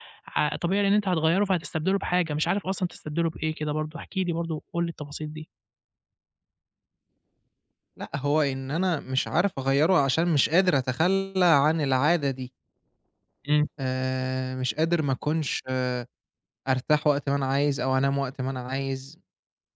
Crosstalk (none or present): none